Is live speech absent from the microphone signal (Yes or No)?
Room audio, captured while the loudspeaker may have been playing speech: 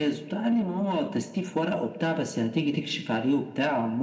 Yes